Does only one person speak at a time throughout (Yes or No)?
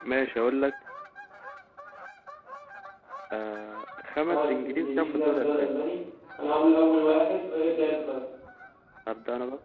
No